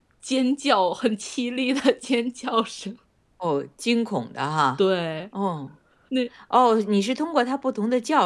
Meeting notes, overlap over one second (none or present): none